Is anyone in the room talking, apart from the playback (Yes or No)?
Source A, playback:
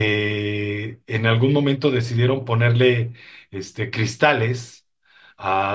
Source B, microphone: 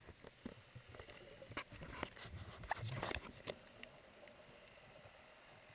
No